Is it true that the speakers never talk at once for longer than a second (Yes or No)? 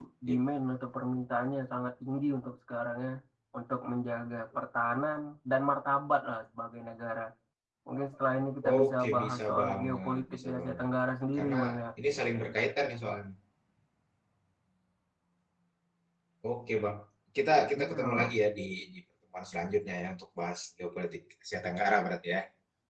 No